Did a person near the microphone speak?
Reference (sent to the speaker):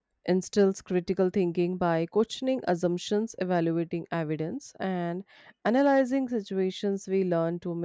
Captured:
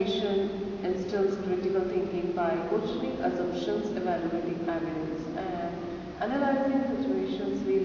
No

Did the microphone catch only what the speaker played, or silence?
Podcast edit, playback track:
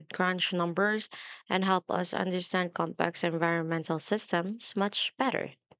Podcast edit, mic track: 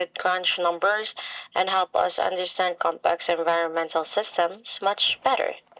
Yes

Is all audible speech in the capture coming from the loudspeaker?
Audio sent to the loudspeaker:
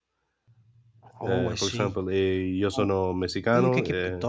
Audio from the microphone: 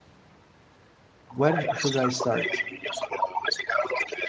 No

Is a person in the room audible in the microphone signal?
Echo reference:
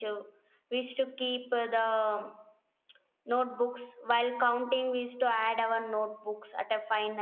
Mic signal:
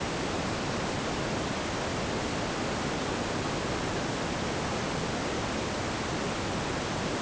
No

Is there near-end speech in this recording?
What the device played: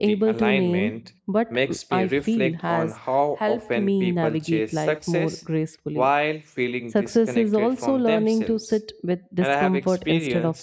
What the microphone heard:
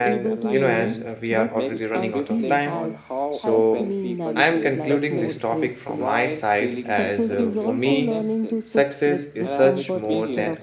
Yes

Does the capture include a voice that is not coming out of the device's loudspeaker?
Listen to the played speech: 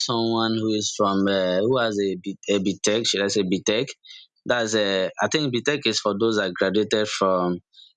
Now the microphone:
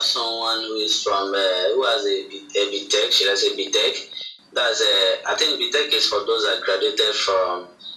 No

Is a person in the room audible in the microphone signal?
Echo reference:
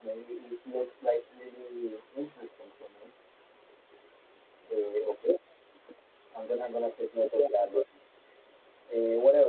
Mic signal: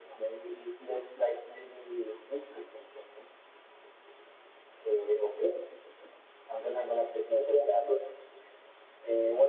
No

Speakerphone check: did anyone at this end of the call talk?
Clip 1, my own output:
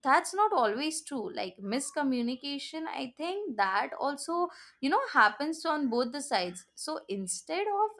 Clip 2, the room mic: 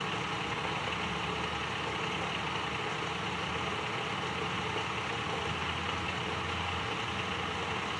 No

